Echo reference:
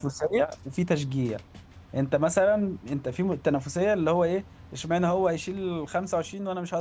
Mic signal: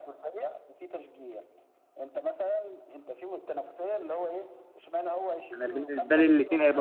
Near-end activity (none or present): present